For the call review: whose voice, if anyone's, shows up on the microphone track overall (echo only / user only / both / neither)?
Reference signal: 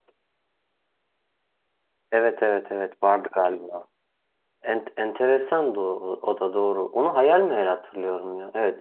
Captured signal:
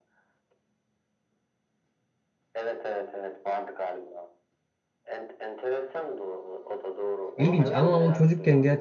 both